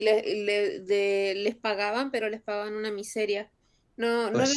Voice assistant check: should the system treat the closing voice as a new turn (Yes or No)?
No